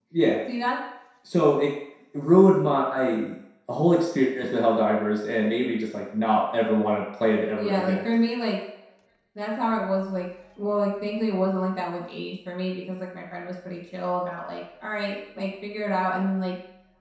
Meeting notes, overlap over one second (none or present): none